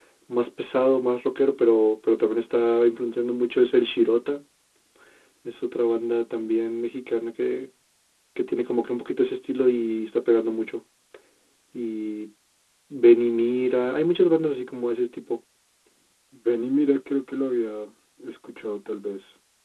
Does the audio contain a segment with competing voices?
No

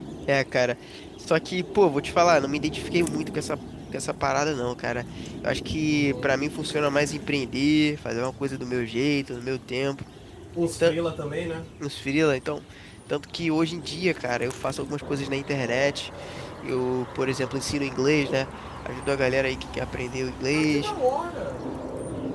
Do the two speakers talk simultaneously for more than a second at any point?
No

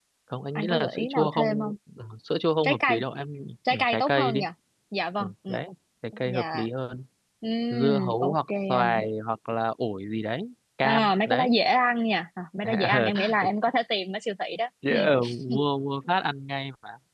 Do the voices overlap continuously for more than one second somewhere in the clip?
Yes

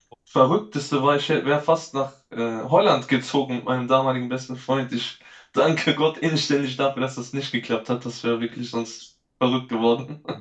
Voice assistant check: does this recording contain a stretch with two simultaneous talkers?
No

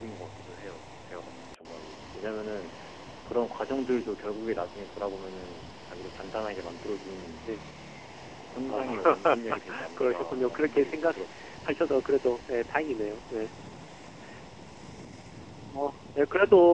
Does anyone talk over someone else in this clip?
Yes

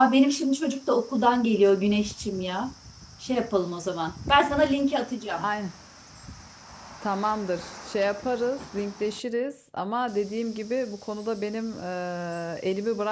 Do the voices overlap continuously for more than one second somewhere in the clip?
No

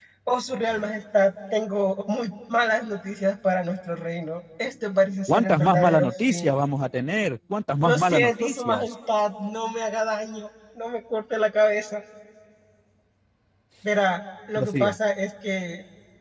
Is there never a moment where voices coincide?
No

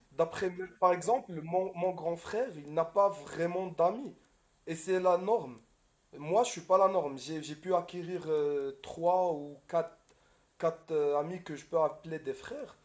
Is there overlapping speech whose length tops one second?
No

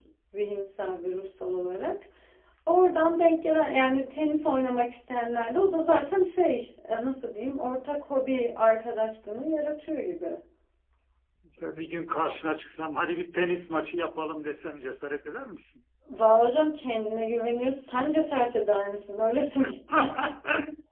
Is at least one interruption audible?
No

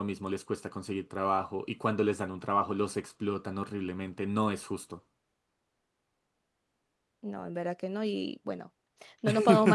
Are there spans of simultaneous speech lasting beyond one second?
No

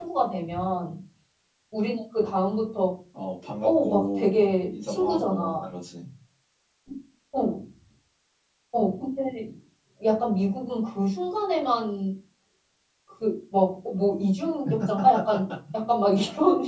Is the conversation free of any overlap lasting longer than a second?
No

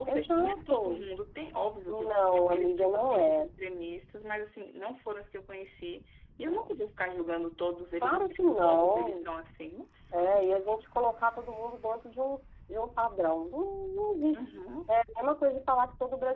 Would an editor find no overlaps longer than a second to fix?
No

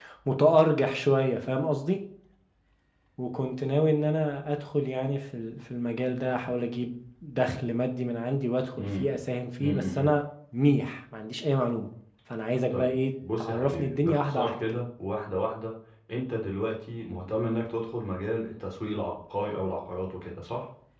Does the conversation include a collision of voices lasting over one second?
Yes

